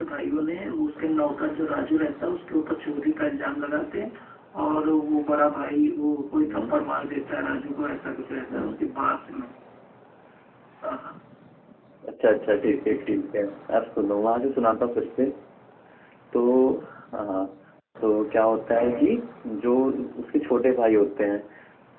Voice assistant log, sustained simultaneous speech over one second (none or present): none